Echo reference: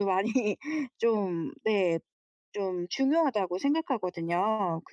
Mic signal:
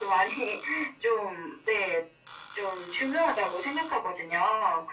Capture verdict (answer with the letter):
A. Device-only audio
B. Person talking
A